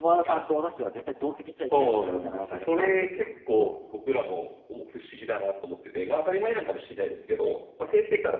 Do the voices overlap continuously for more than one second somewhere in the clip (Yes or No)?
Yes